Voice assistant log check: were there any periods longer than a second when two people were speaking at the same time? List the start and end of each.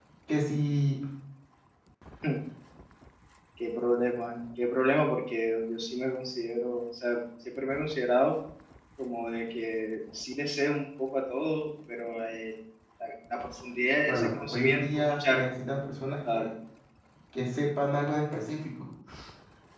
14.1-15.5

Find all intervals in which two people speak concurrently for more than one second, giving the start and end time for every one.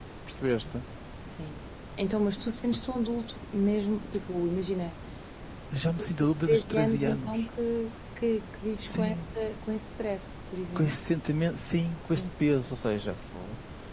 5.9-7.4

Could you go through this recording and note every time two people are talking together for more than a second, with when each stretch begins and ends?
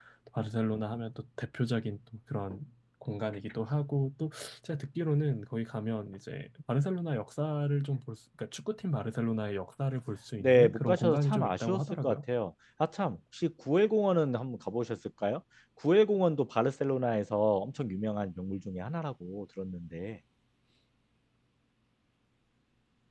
10.4-12.2

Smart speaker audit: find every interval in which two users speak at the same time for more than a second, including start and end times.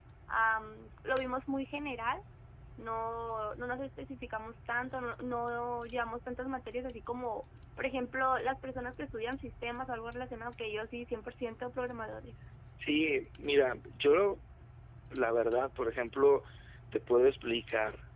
none

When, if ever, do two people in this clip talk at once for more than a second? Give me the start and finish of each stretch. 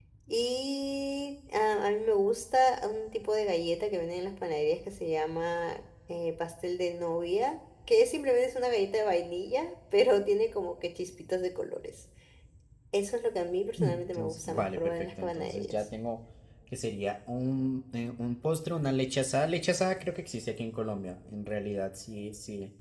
13.8-15.9

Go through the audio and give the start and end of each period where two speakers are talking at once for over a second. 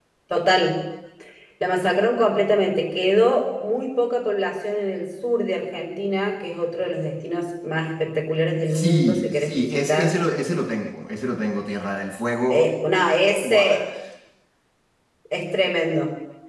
8.7-10.1

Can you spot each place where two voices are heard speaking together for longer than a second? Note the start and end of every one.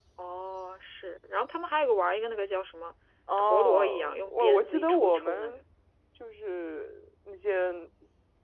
3.4-5.6

